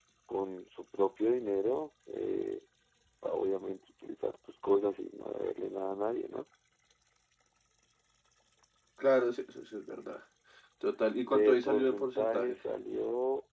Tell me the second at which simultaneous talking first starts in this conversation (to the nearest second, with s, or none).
11 s